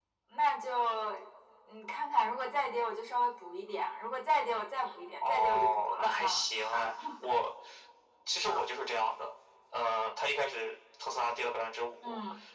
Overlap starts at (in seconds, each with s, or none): 5.2 s